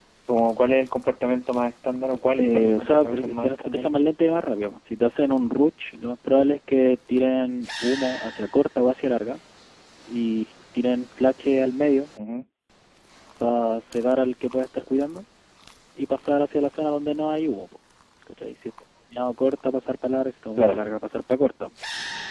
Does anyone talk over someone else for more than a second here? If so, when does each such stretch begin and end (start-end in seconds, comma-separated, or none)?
2.4-3.9